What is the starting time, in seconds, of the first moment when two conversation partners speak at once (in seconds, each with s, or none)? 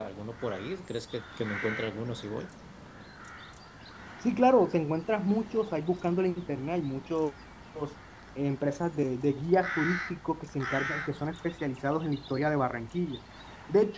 none